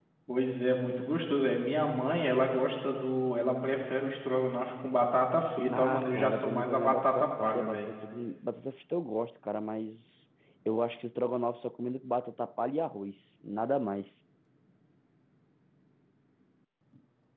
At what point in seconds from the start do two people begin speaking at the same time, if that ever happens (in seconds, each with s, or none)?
5.7 s